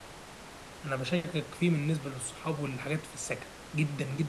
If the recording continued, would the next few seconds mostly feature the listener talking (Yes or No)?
No